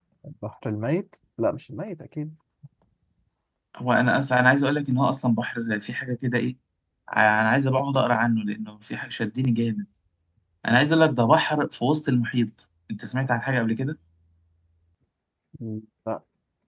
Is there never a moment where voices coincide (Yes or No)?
Yes